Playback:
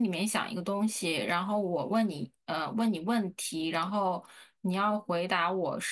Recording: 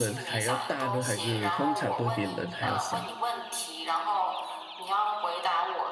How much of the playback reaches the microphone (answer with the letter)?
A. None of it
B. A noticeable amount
B